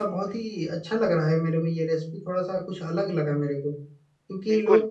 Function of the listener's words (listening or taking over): listening